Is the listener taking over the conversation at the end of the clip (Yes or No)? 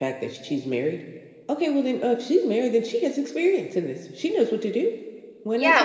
Yes